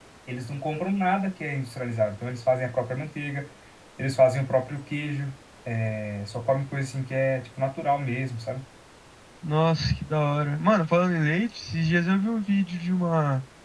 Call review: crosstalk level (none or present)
none